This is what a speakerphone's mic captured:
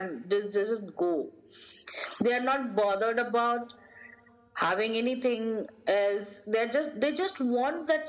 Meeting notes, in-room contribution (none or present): none